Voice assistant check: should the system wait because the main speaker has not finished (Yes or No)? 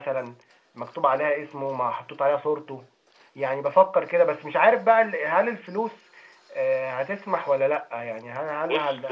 No